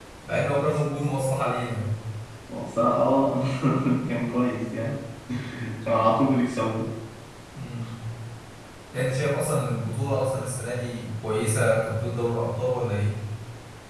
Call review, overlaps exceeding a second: none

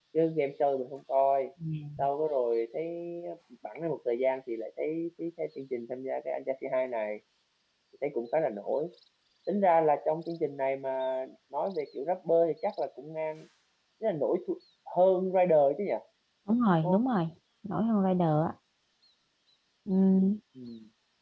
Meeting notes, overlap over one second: none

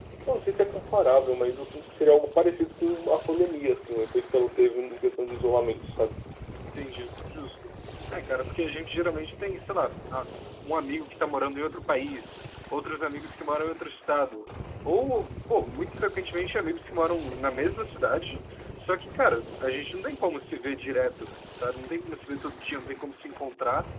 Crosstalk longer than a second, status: none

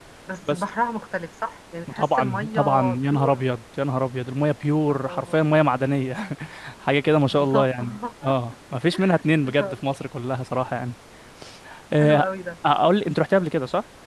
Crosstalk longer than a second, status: present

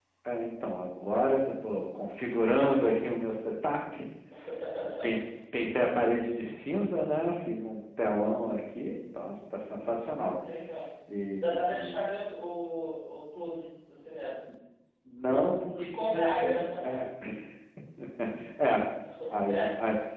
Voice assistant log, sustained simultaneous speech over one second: present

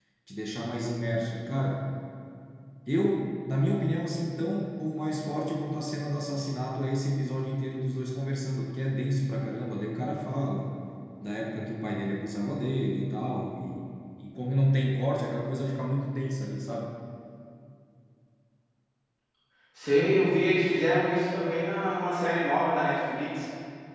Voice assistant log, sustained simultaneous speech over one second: none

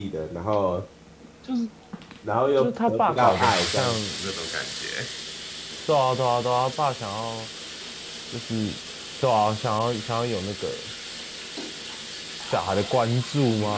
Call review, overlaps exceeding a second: present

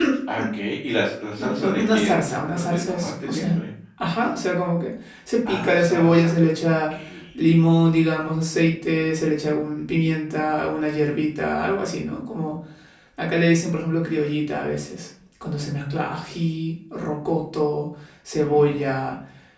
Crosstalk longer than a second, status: present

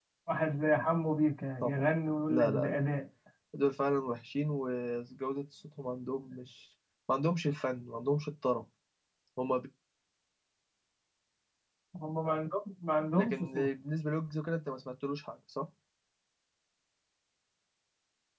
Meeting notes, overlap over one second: none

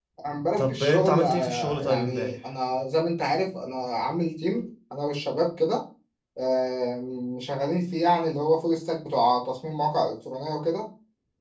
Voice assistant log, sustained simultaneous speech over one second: present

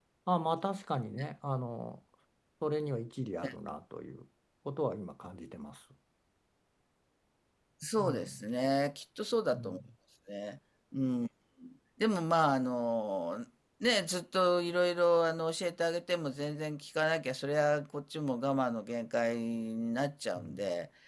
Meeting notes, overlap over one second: none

